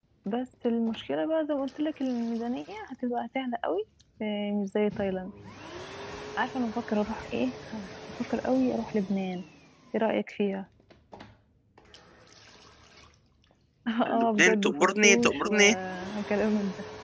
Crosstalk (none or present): present